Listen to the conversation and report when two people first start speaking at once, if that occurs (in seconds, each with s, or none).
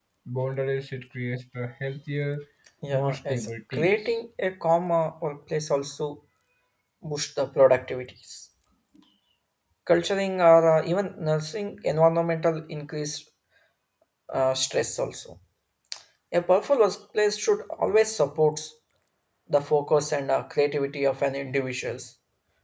2.9 s